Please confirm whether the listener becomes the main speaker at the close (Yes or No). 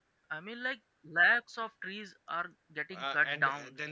Yes